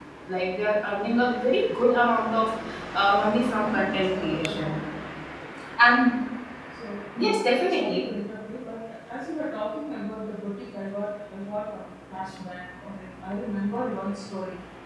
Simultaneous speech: Yes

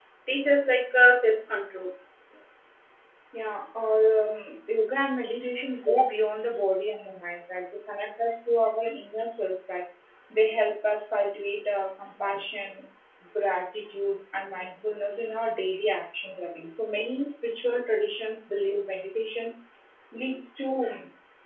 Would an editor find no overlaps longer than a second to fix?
Yes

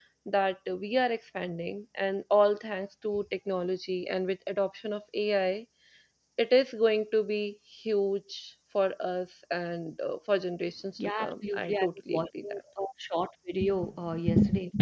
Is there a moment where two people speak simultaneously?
Yes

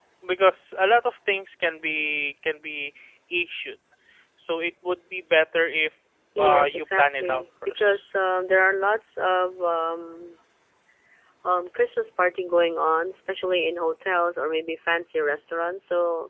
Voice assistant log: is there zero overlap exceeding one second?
No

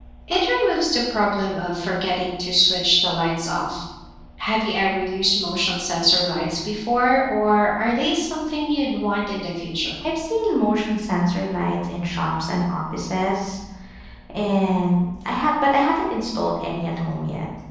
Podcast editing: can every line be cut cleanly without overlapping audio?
Yes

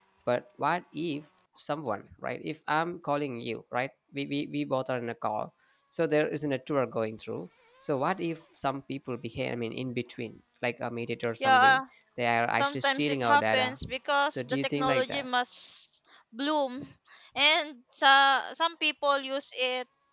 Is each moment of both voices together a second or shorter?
No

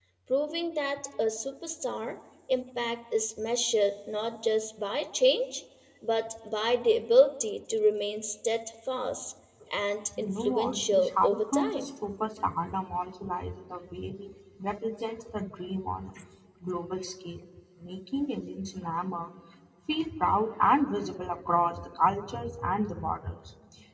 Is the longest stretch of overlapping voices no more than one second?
No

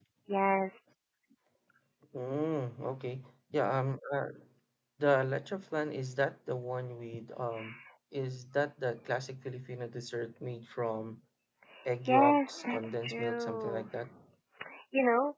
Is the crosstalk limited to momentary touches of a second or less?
No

